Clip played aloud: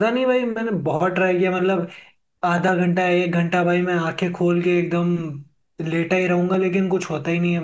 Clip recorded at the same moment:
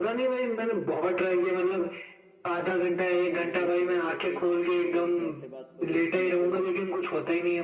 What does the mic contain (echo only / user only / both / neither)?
both